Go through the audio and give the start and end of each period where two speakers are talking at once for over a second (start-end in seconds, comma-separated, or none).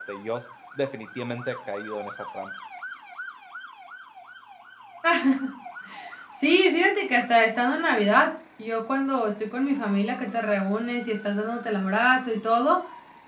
none